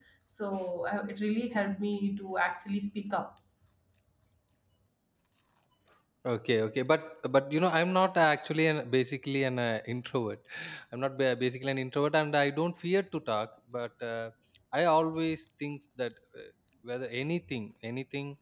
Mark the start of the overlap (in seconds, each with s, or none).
none